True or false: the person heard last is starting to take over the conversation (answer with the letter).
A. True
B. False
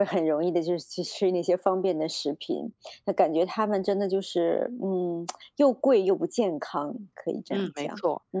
A